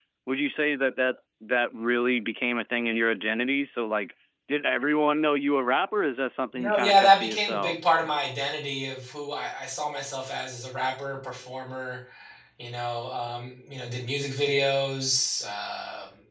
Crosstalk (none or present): present